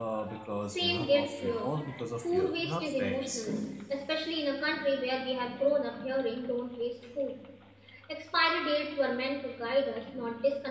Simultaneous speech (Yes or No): Yes